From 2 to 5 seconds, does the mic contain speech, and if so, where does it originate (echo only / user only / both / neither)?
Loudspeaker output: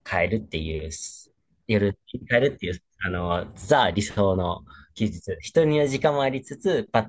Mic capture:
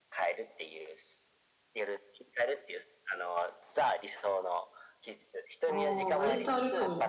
echo only